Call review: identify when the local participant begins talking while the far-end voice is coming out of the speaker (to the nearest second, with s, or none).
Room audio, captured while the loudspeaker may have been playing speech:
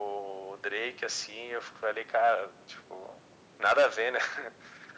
none